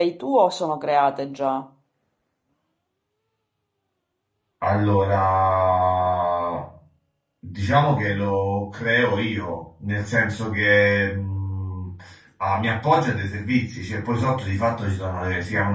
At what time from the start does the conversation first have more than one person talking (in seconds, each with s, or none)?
none